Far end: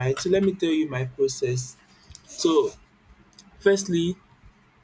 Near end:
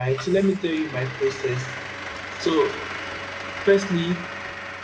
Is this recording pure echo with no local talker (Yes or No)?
Yes